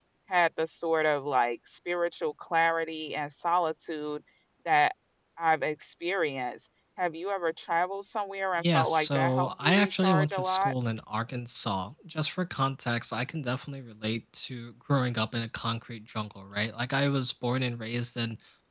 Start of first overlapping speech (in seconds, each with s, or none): 8.6 s